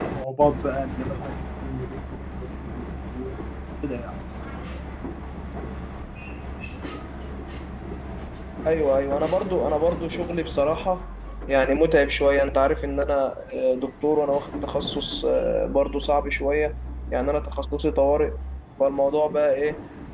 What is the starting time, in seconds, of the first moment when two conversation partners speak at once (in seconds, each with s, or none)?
none